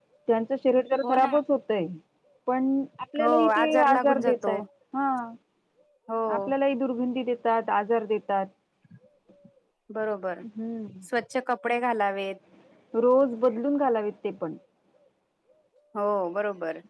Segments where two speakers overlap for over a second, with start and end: 3.2-4.6

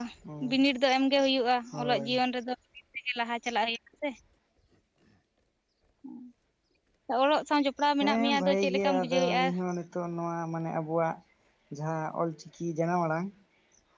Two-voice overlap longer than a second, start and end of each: 8.0-9.5

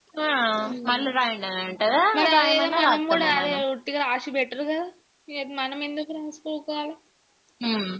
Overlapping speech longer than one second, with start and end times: 2.2-3.6

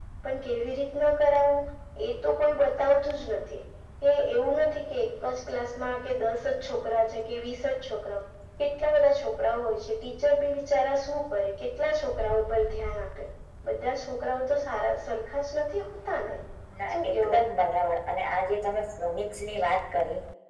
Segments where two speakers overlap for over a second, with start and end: none

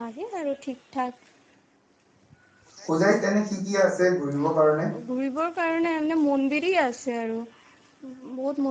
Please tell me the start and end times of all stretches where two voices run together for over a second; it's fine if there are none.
none

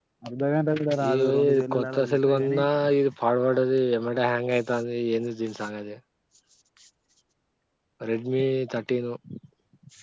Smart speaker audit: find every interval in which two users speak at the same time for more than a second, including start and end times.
1.1-2.6

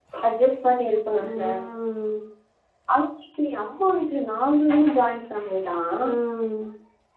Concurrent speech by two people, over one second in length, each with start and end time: none

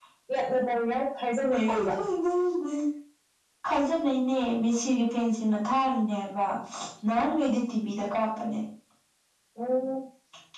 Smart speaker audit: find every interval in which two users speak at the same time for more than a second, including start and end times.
none

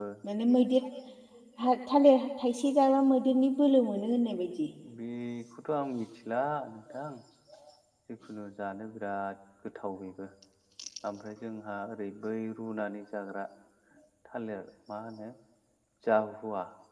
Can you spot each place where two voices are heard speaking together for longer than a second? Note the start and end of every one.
none

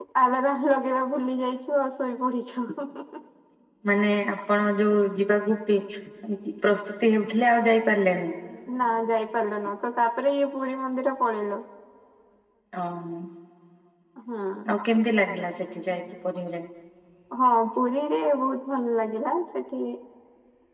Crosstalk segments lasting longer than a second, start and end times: none

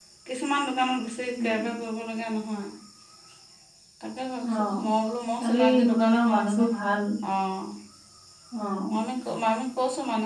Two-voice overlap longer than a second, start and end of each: 5.4-6.7

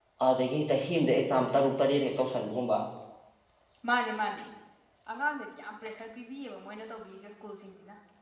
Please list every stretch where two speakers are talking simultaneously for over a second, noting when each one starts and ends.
none

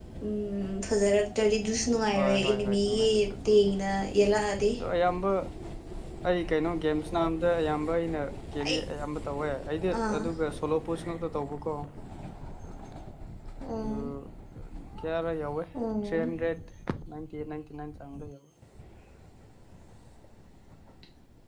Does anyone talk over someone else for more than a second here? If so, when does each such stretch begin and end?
2.2-3.7

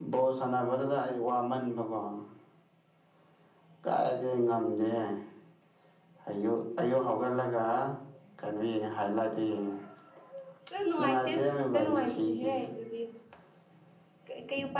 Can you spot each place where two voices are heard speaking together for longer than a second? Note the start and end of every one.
10.9-12.7

